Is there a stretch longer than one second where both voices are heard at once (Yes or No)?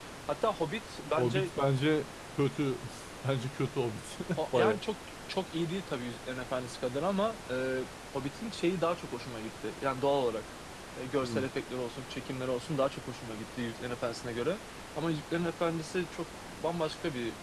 No